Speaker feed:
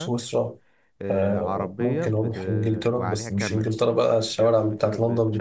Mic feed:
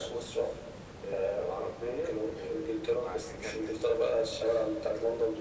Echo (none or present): present